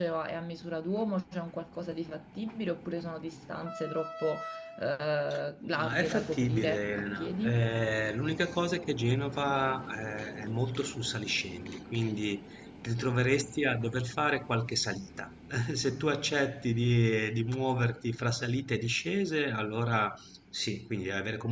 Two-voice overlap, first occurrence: 5.7 s

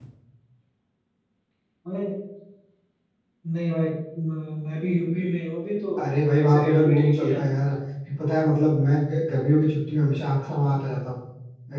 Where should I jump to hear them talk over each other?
6.0 s

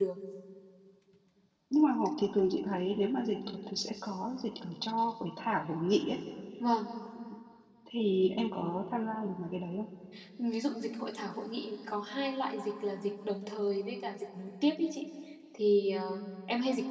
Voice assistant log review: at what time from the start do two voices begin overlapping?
none

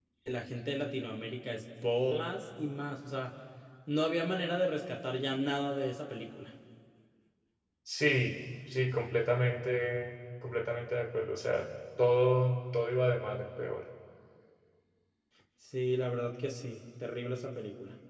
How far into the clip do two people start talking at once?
none

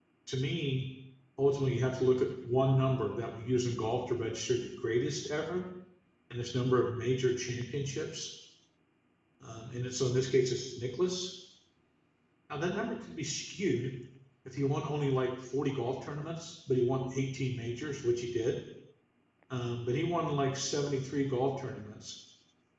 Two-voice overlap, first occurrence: none

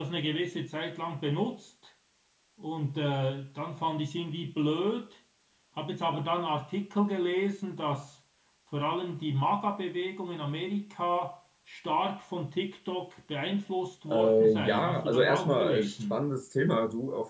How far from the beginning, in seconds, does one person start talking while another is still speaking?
14.1 s

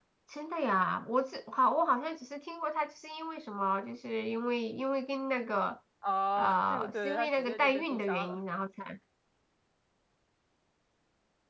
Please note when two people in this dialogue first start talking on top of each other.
6.4 s

